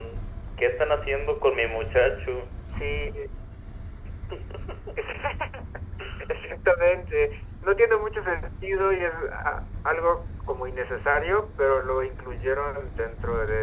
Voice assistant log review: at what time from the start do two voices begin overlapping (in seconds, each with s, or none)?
none